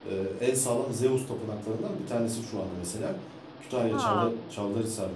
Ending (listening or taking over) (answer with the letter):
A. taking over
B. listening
B